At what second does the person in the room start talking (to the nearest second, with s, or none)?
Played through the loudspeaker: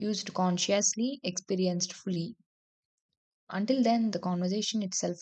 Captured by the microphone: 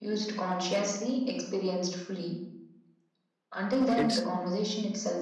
4 s